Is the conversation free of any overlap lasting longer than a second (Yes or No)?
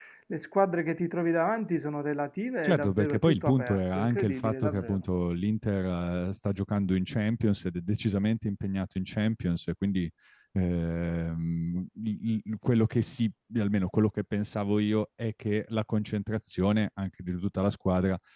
No